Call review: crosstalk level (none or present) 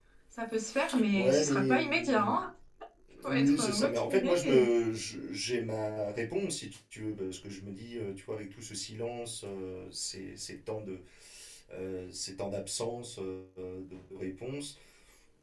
present